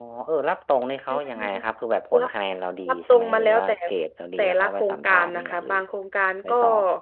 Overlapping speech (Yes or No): Yes